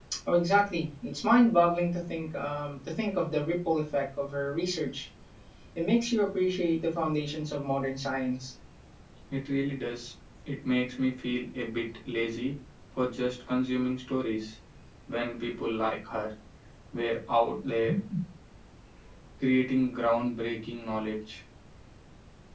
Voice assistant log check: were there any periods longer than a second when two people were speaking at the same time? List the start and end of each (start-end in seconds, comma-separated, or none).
none